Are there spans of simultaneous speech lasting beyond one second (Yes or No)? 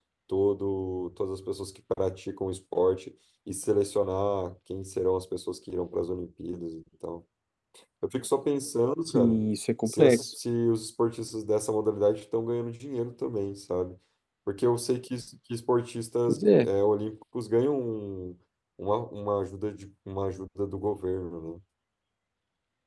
No